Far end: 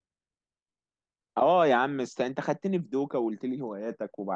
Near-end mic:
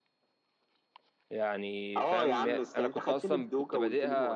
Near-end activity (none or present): present